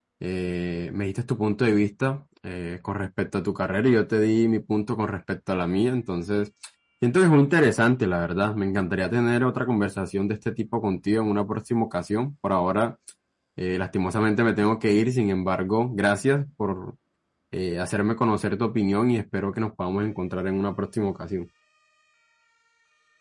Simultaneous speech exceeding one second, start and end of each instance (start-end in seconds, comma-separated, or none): none